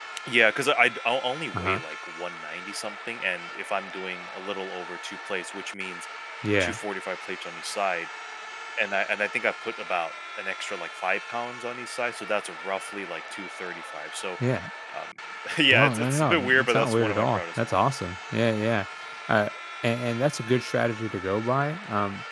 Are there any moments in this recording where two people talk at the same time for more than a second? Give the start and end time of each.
15.7-17.8

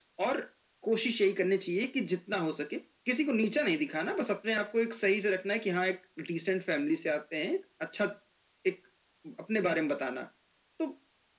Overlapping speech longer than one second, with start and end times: none

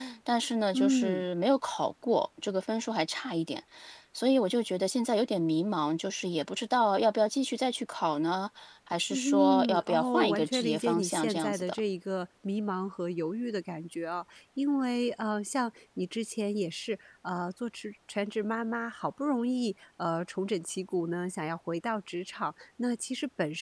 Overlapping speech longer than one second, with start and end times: 9.1-11.8

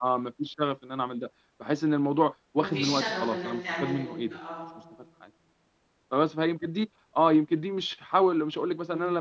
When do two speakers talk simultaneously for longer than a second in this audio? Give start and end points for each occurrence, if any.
2.6-4.4

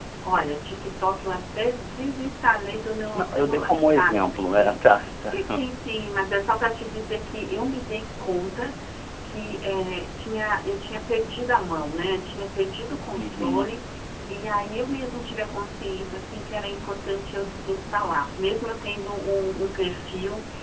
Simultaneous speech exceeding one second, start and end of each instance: 3.1-4.7

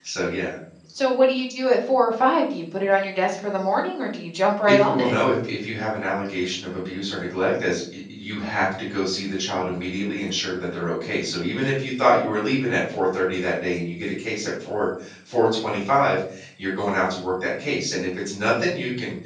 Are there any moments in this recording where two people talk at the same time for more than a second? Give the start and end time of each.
none

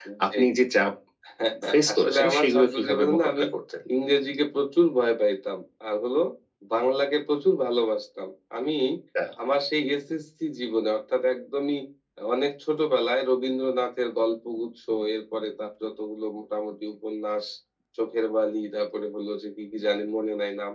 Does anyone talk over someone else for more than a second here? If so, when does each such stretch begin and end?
1.9-3.4

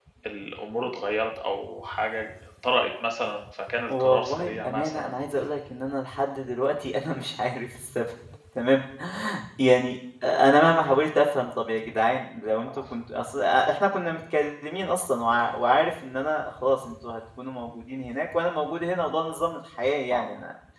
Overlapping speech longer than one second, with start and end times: 3.9-5.1

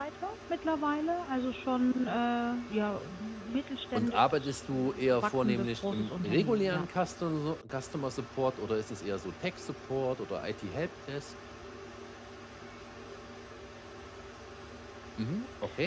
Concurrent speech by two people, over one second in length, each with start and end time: 4.0-6.8

